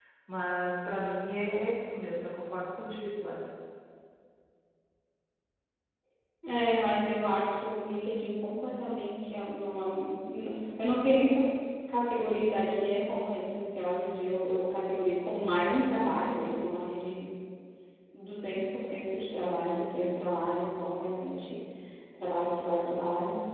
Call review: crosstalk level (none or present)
none